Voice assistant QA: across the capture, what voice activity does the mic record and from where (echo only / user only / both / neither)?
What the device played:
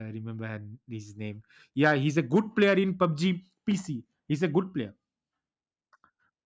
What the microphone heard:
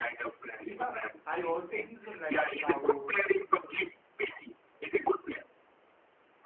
both